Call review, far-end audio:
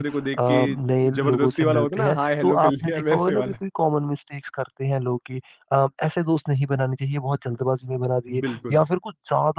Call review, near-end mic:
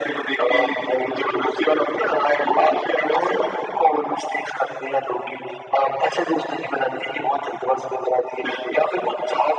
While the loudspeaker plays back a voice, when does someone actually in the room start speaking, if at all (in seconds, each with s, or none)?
none